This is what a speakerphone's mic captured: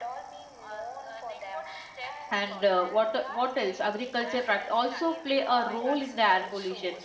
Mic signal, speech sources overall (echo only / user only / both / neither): both